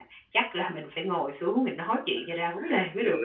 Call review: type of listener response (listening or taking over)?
taking over